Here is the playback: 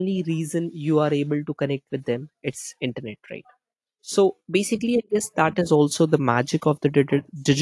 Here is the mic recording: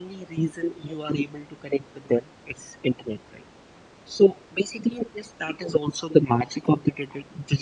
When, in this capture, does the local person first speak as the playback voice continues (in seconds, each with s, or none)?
none